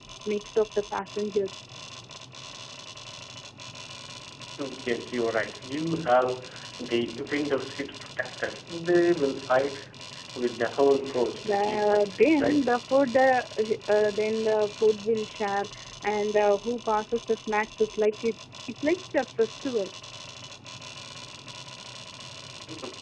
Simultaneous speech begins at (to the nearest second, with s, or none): 11 s